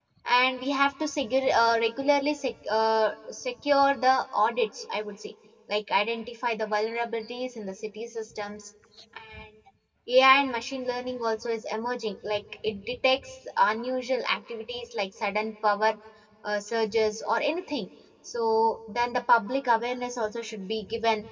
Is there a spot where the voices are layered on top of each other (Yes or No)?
No